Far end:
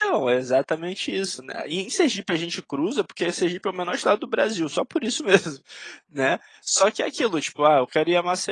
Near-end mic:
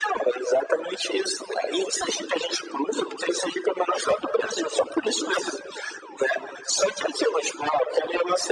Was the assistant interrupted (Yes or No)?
No